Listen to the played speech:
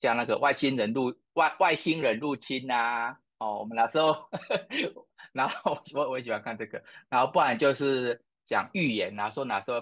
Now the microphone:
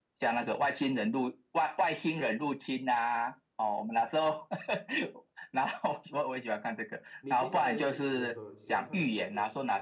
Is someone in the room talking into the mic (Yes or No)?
Yes